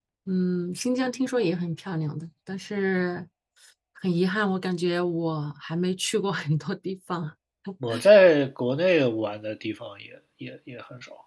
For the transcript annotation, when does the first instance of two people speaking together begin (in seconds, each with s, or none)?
none